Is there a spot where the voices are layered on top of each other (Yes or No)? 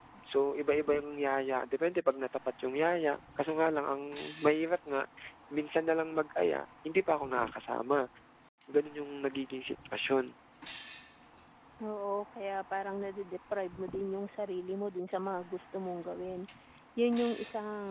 No